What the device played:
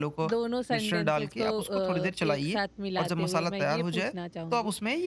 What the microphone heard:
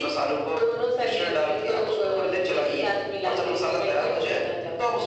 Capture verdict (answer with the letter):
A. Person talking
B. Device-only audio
B